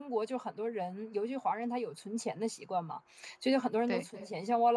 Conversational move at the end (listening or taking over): listening